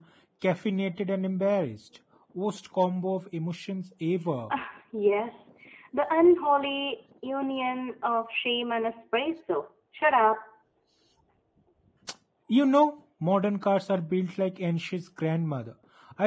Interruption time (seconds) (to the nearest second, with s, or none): none